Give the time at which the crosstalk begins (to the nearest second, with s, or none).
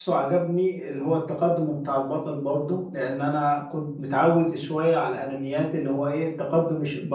none